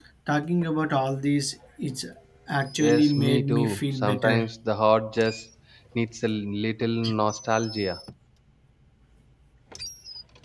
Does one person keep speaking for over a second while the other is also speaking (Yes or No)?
Yes